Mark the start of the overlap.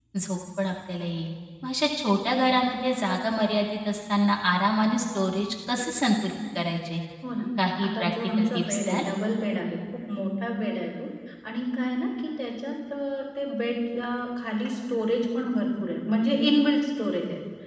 7.8 s

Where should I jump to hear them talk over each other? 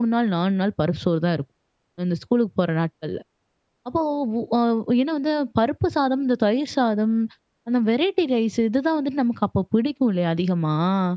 none

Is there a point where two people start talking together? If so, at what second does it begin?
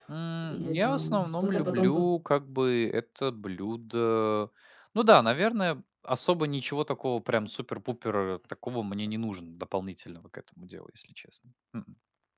0.5 s

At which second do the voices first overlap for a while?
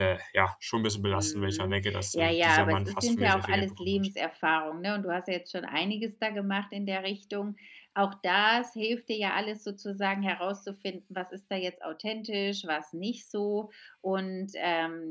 1.1 s

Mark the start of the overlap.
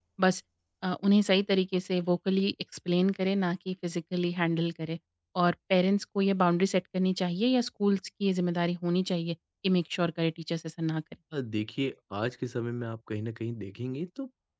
none

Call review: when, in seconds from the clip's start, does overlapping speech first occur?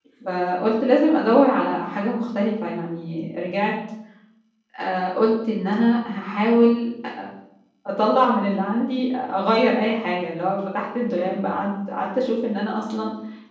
none

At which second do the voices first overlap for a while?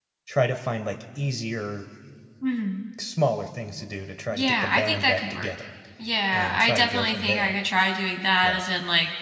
4.3 s

